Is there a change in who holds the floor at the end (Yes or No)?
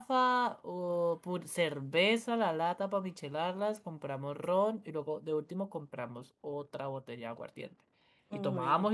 No